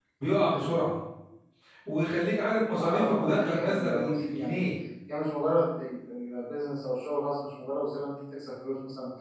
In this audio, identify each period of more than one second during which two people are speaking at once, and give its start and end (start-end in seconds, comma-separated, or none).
2.8-4.7